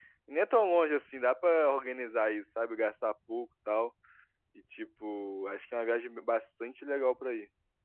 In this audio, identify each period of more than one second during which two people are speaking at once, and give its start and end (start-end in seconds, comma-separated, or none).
none